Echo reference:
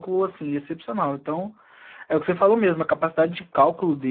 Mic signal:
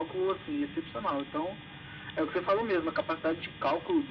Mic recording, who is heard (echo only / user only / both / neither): echo only